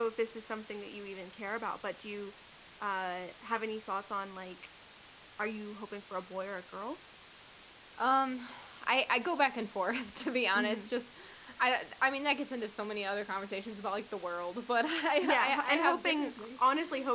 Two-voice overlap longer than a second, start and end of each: 15.2-16.6

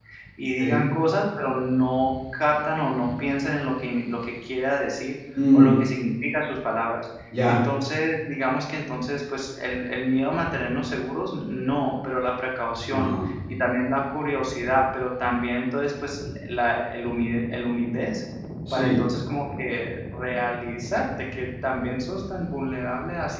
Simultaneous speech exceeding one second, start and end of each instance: none

